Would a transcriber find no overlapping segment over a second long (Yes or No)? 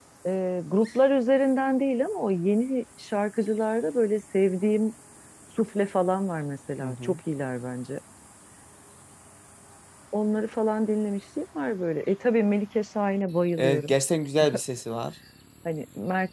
Yes